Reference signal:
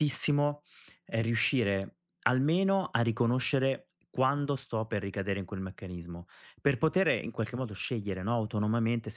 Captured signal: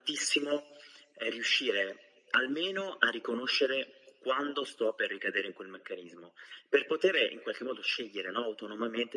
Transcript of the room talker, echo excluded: none

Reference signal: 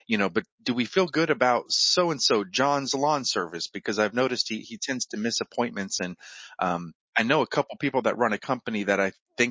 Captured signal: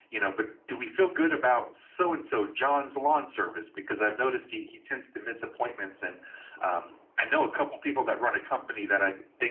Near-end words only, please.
none

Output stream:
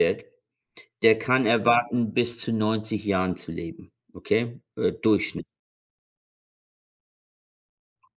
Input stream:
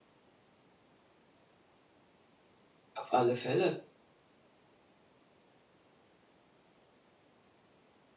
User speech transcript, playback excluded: Auf alle Fälle,

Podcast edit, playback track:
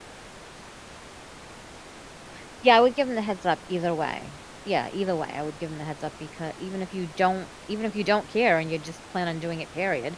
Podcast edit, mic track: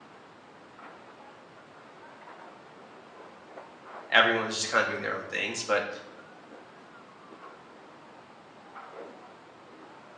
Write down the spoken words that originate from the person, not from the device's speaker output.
everyone's just kind of doing their own things. But

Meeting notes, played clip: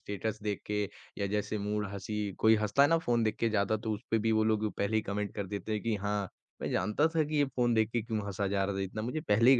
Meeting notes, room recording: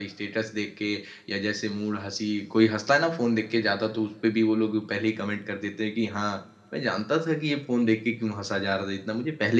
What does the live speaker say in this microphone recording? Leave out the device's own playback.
none

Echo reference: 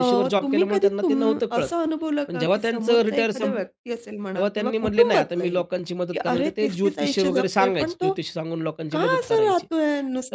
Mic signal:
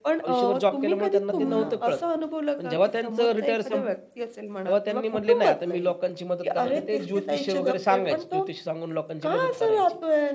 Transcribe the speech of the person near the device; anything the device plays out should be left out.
हो ना.

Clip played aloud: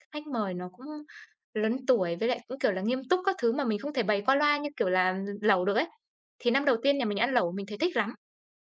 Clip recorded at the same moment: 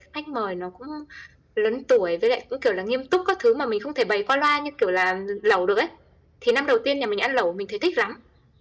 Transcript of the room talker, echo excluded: none

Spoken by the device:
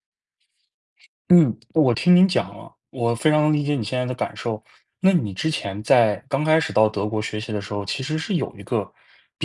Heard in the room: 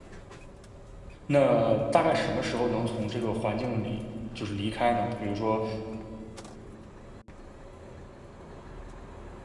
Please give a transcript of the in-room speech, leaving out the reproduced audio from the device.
那大概什么时候能从这个环境里就是离开呢？比如说，

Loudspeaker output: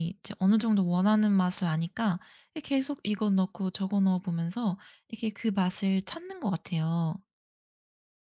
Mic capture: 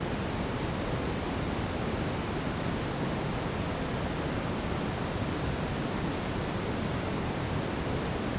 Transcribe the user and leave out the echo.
none

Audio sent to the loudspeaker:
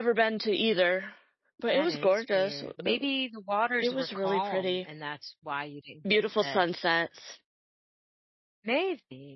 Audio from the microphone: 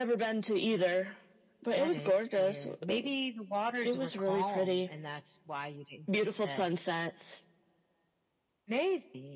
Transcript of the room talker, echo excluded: none

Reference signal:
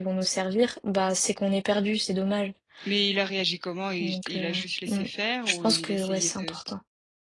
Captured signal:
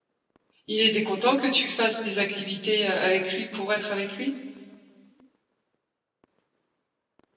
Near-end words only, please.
Il était content que tu fasses des activités, heu, avec lui pour être avec lui?

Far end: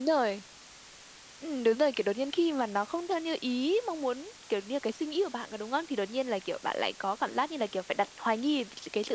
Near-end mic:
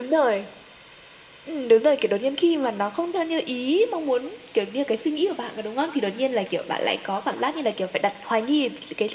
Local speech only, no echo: none

